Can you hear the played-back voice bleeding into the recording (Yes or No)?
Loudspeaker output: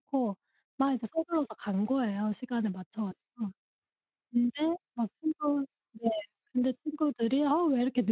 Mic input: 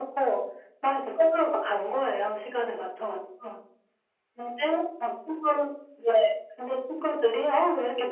Yes